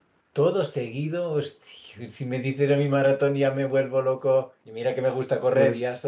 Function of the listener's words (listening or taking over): listening